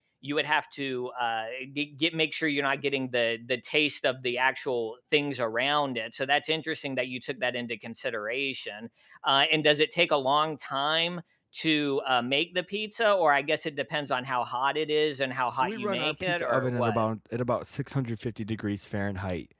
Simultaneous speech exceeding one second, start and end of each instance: 15.5-17.1

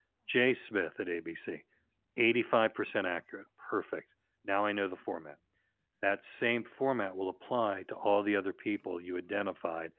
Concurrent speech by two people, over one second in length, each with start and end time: none

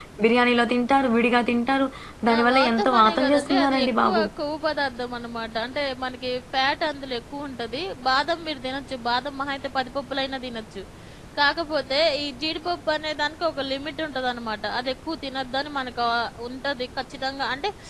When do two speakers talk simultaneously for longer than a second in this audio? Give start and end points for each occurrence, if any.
2.3-4.2

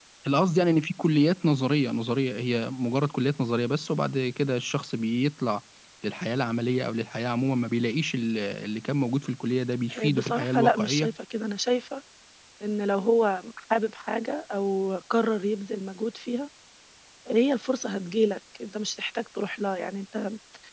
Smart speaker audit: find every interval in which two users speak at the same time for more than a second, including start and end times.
9.9-11.1

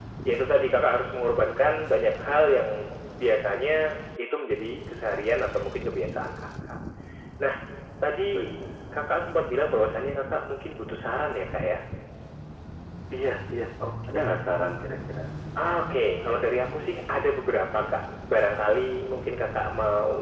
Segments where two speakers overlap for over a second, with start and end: none

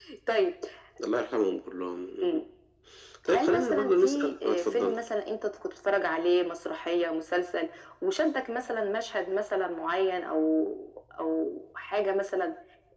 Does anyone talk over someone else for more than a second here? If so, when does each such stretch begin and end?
3.3-4.9

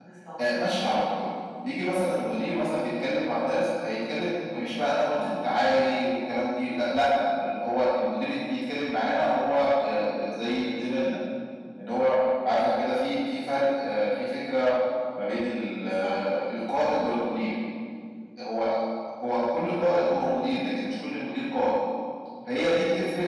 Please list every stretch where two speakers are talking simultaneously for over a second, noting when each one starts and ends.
none

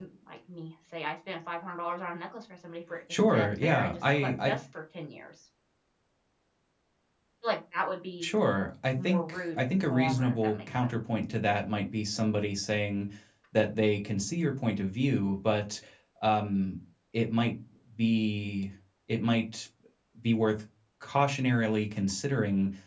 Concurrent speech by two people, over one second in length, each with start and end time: 3.3-4.5, 9.0-10.9

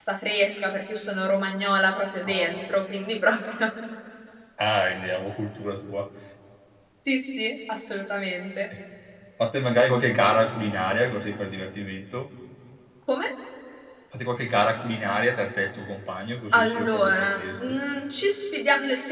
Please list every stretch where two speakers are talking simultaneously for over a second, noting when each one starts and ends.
16.5-17.8

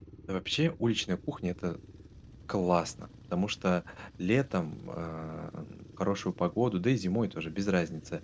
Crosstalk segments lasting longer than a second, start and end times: none

